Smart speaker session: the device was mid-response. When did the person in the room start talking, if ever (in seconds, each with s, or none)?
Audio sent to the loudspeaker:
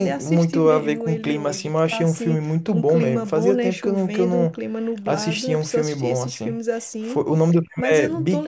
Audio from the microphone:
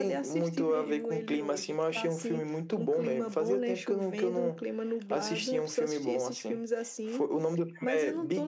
none